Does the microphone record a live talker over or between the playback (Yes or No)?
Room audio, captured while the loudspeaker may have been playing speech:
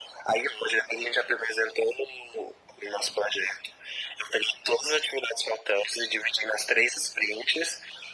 No